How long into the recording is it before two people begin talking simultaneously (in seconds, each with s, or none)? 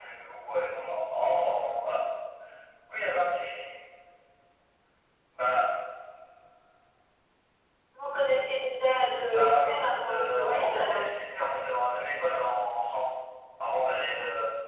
9.2 s